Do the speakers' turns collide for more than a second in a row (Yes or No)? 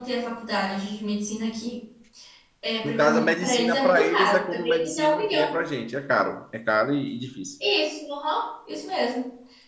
Yes